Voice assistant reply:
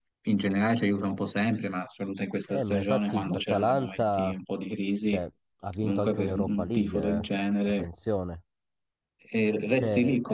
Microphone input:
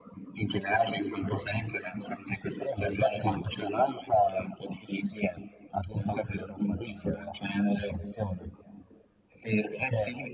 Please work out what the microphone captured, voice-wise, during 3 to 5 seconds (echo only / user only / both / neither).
echo only